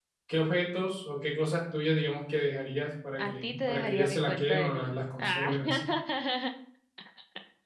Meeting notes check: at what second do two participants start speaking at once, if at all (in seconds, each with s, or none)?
3.2 s